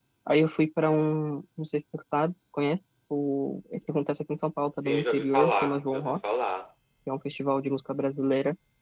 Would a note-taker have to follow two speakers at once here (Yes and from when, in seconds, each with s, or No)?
Yes, from 4.8 s